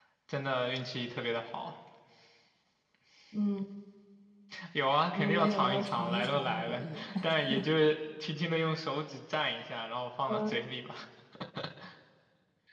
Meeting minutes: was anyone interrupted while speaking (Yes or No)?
Yes